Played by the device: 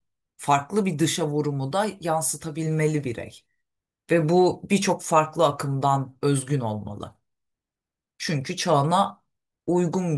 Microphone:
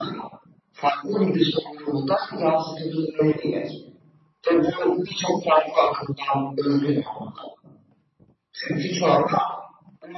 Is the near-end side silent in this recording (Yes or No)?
Yes